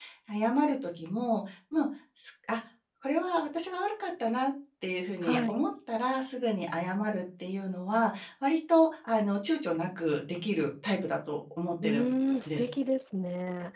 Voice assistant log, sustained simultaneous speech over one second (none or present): none